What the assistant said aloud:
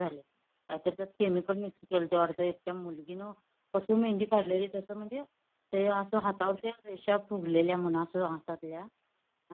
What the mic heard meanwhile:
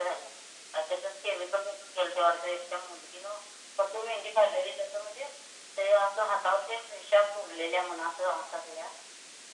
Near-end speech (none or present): none